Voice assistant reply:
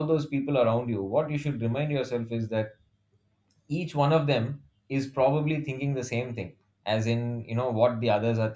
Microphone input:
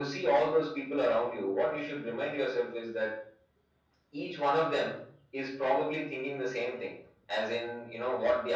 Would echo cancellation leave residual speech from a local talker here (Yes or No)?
No